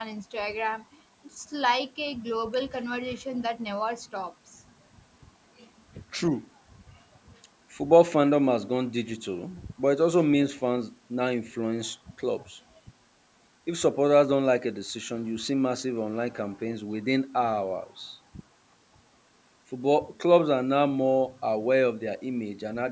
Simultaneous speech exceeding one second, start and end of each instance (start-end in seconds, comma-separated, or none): none